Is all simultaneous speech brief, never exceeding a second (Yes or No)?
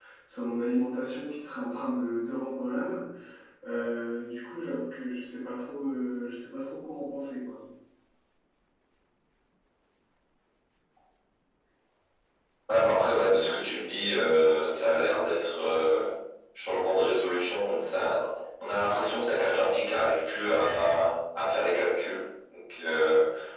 Yes